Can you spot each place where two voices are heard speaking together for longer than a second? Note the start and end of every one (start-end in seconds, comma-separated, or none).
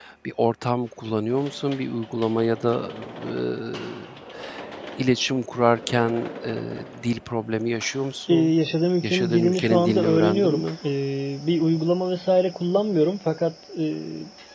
9.0-10.6